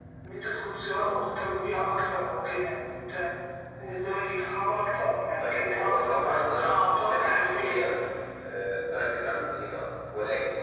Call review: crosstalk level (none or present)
present